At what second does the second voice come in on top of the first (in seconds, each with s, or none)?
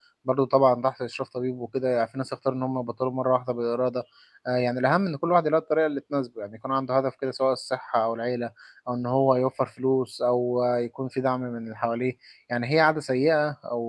none